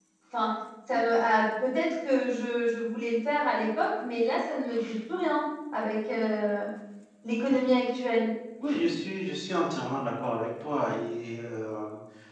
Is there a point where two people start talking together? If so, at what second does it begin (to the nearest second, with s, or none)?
none